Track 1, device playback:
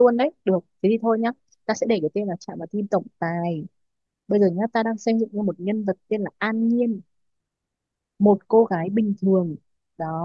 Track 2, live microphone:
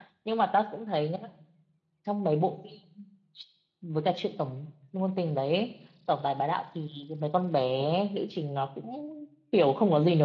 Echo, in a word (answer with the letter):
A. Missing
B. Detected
A